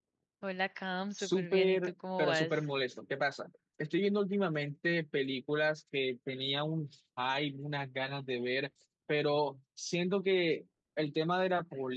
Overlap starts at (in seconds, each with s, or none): 1.2 s